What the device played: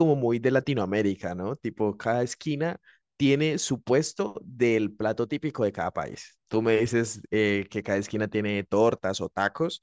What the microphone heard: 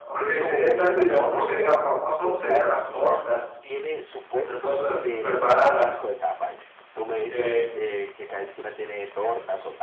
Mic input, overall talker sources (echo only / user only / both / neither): both